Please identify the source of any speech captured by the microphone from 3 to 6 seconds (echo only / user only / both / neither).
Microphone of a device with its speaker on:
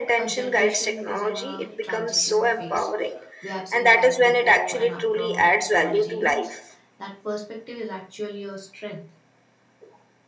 both